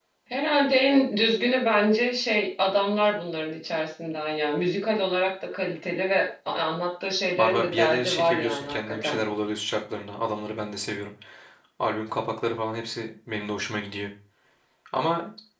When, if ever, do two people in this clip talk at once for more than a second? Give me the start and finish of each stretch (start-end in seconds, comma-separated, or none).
7.4-9.2